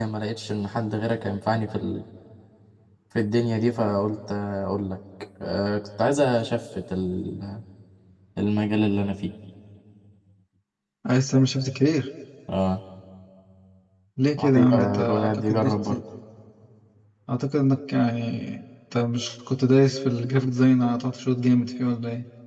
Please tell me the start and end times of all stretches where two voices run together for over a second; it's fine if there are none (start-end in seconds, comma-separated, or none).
14.4-15.9